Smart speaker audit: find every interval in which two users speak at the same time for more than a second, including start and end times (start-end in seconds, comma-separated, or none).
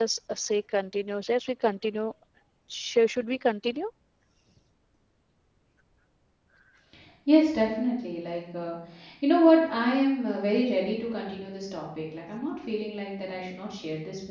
none